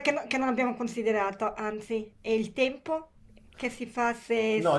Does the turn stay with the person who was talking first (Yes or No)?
No